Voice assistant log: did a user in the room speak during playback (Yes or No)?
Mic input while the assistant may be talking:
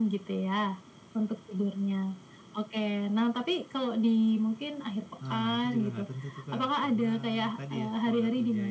No